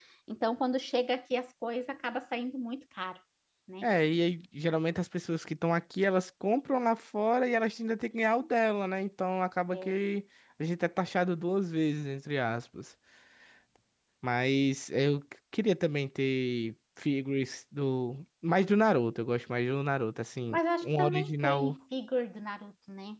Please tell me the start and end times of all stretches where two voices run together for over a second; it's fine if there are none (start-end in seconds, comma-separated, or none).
20.5-21.8